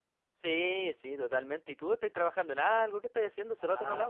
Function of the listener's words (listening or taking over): taking over